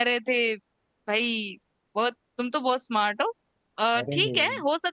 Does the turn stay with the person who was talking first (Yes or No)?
Yes